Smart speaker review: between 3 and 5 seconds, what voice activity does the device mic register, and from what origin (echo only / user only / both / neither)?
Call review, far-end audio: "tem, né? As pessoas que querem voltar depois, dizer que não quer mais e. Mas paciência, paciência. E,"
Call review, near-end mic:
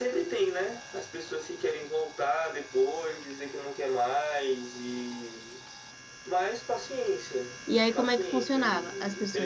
echo only